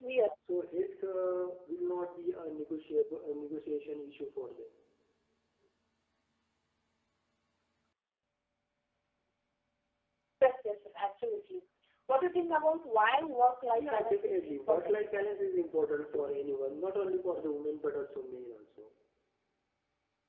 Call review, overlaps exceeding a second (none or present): present